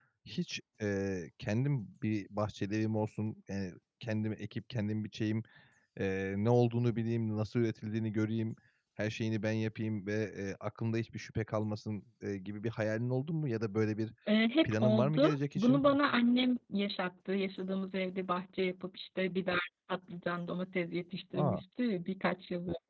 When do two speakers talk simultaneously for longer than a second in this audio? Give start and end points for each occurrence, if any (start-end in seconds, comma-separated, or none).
14.6-16.0